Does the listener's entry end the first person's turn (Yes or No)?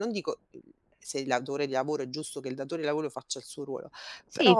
Yes